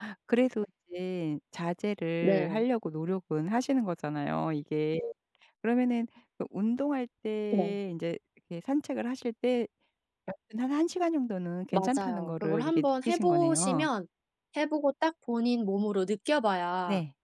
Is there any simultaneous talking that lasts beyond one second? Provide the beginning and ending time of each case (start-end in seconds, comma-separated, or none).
11.7-13.9